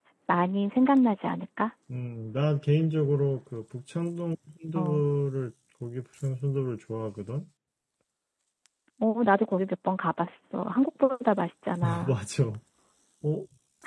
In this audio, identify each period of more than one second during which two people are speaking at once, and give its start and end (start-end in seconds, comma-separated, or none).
none